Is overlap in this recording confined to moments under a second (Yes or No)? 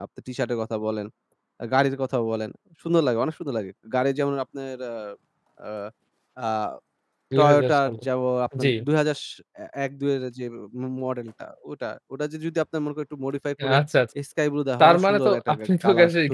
No